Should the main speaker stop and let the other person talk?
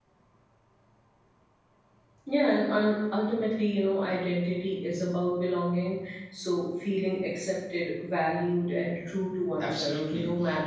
Yes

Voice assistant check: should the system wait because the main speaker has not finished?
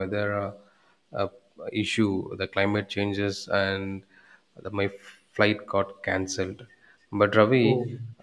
Yes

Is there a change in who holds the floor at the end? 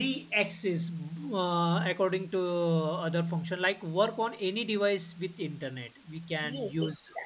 Yes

